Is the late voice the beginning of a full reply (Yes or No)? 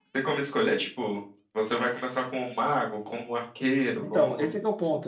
Yes